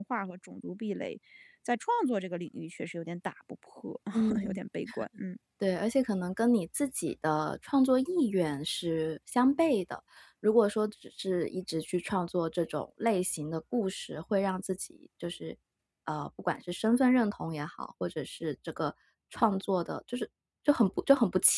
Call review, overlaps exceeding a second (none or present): none